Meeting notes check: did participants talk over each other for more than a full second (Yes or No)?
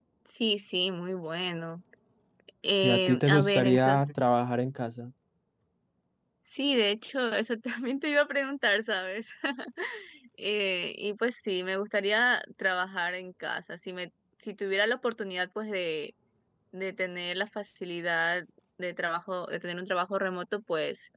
Yes